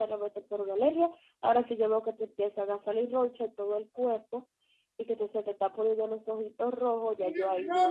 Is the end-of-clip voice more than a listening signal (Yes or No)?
Yes